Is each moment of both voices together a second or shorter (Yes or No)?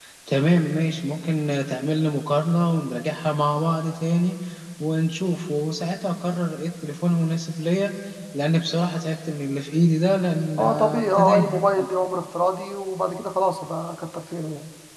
No